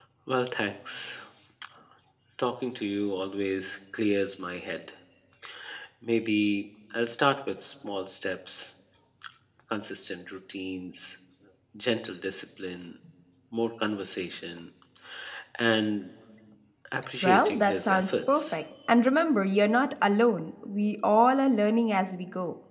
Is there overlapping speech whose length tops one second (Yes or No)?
Yes